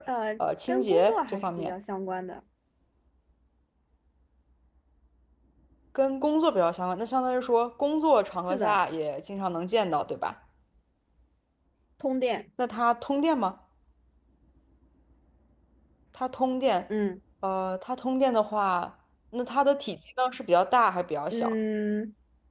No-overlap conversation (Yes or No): No